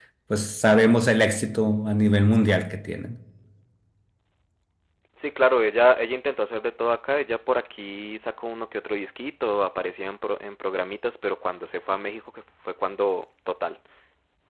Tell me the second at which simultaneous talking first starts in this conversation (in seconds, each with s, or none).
none